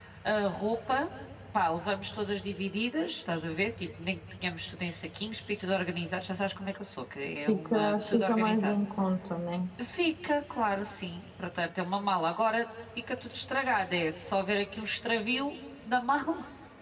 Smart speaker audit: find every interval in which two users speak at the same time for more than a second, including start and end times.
7.5-8.7

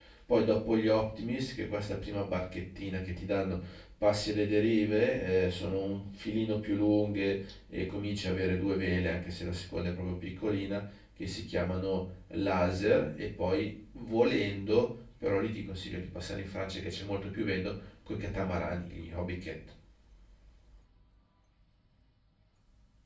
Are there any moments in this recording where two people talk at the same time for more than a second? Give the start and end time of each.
none

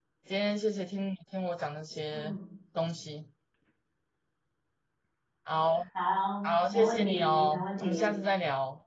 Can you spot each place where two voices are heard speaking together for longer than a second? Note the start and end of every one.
6.4-8.2

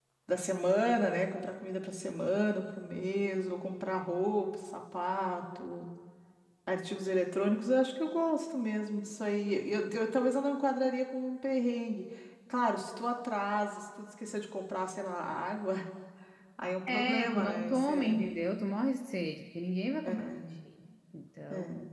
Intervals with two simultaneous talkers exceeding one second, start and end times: 16.9-18.2

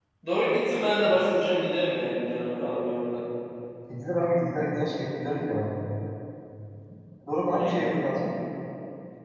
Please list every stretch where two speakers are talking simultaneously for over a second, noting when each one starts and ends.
none

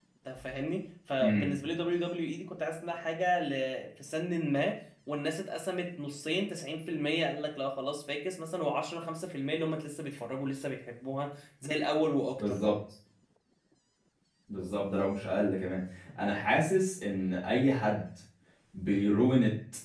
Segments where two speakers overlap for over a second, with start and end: none

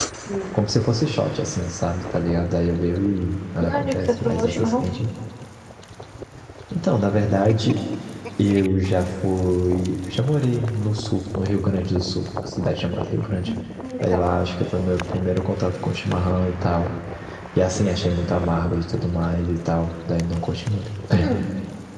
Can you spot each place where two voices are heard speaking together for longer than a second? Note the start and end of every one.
3.6-4.9

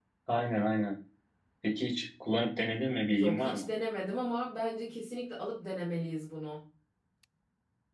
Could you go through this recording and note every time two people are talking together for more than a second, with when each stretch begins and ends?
none

